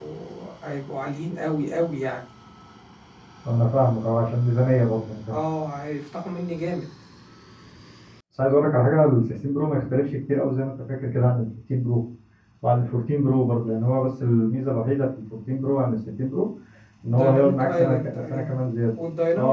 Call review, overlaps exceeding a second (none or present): present